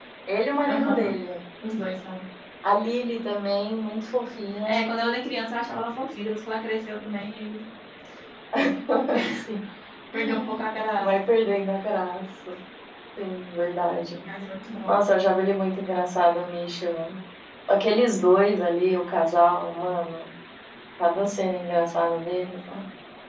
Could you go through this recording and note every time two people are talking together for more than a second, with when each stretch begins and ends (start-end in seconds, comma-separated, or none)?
none